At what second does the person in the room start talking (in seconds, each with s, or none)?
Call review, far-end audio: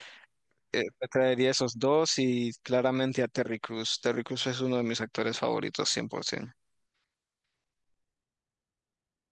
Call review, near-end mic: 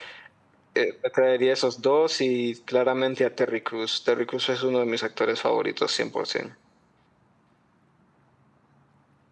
none